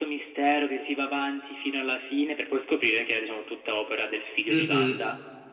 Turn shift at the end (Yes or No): Yes